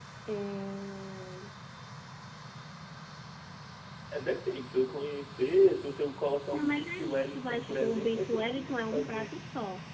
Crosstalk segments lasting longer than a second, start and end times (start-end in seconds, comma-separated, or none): 6.5-9.3